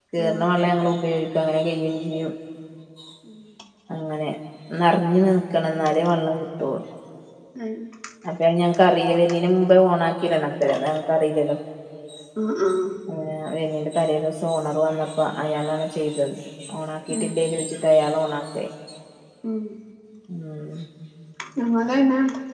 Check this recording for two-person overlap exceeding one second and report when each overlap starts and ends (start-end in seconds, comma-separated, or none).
none